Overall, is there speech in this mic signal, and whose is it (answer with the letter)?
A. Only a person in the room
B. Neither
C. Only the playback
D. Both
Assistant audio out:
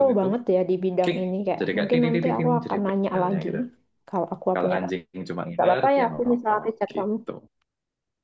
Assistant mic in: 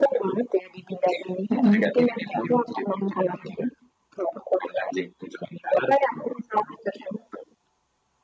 D